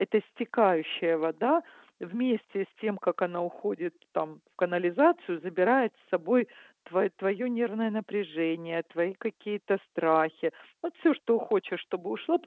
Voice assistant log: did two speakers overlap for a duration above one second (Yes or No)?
No